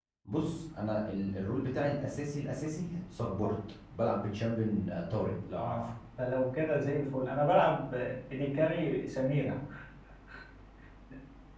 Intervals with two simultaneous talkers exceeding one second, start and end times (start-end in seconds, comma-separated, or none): none